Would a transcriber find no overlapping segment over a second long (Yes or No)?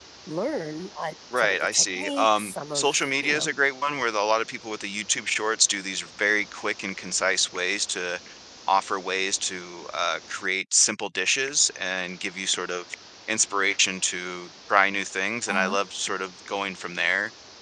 No